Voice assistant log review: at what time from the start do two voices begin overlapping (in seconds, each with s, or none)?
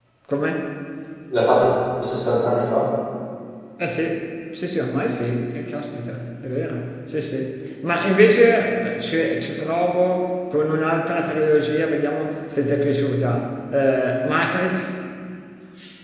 none